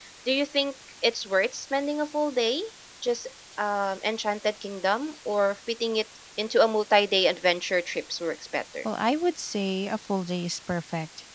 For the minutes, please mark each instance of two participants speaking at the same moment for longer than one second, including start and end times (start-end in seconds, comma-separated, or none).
none